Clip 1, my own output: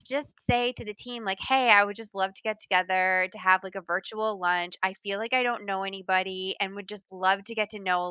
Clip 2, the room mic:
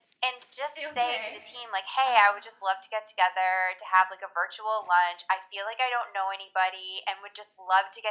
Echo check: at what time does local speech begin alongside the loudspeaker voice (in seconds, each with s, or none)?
0.8 s